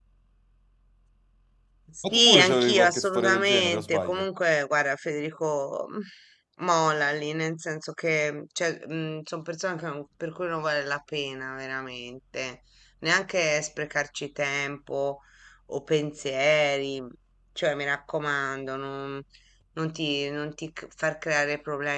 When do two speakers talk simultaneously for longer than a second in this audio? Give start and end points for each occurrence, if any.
2.1-4.2

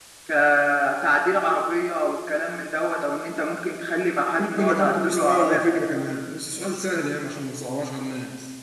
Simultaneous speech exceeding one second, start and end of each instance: 4.4-6.0

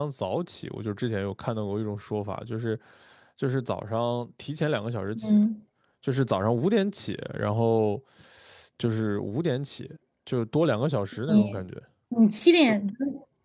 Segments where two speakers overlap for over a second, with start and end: none

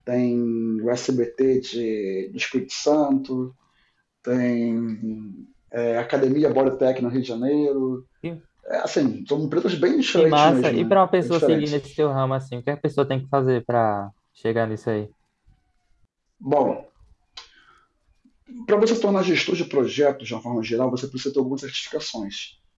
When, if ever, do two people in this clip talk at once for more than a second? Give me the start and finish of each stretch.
10.2-11.7

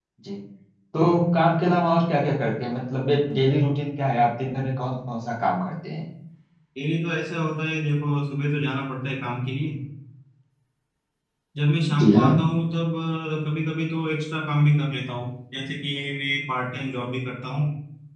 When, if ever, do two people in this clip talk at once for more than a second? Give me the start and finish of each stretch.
none

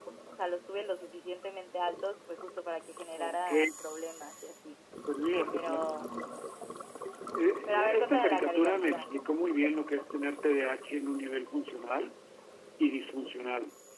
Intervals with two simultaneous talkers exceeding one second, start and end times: 7.7-9.0

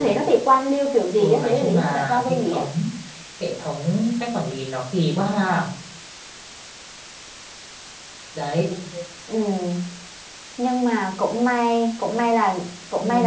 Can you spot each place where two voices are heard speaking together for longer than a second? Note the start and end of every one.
1.2-2.6

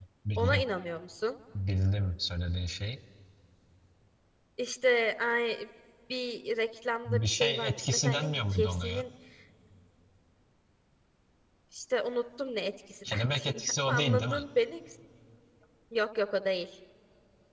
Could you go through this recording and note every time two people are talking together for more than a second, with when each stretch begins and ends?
7.0-9.0, 13.1-14.4

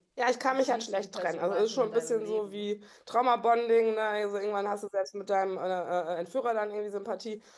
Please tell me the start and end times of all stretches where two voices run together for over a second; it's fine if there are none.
0.5-2.6

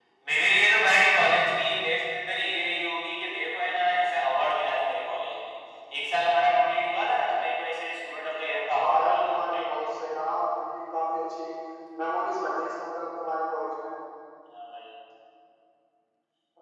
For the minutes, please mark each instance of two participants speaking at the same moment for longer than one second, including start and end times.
8.5-9.9

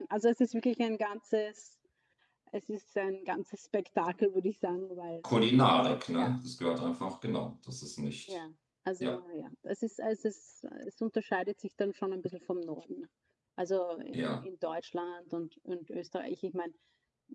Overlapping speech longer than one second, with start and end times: none

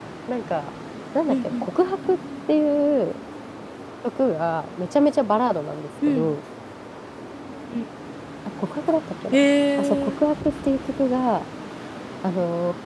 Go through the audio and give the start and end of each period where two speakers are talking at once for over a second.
none

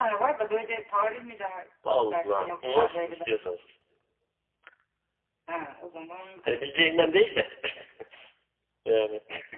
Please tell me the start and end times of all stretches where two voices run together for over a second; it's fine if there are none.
1.9-3.3

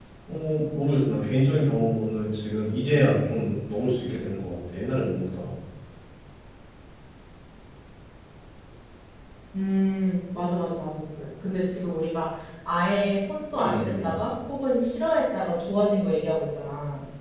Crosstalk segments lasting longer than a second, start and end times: none

